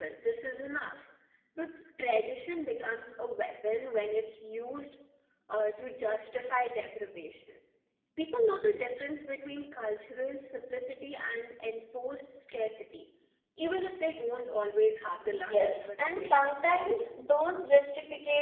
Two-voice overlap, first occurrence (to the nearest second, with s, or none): 15 s